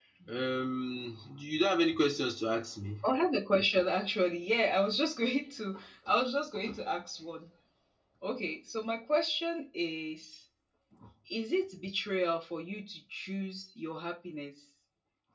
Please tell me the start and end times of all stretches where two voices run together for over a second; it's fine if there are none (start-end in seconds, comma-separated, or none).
none